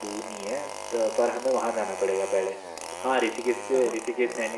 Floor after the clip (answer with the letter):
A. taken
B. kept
B